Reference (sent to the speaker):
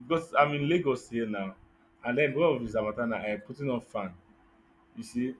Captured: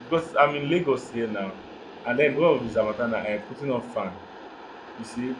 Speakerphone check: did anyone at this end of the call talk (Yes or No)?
No